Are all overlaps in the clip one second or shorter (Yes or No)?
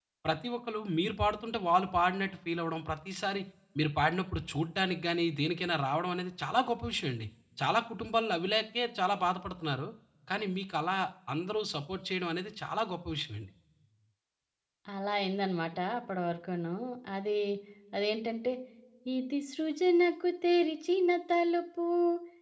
Yes